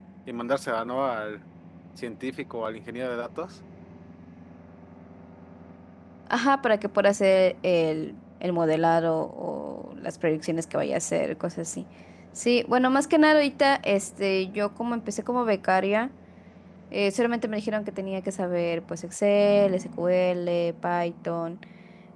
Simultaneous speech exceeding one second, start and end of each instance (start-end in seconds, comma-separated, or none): none